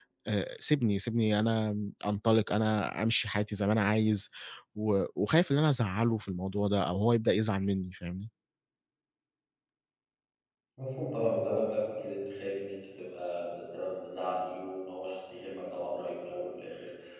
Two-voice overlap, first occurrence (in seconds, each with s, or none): none